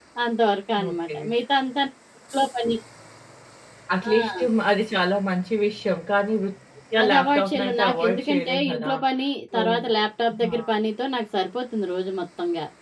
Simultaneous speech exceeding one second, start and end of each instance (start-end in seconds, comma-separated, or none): 7.0-8.9